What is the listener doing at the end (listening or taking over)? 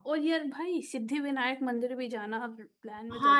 taking over